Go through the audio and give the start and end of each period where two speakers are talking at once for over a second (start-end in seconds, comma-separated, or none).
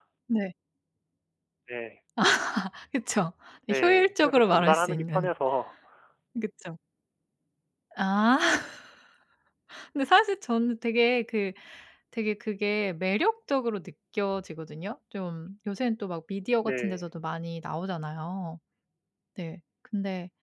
3.8-5.3